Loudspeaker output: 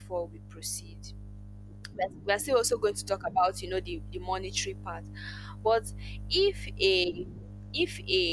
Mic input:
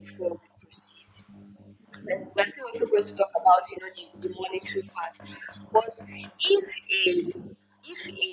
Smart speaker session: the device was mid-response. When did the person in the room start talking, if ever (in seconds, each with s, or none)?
none